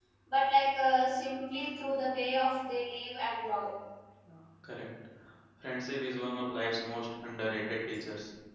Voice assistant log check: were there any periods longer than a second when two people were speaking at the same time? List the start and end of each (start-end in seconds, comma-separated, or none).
none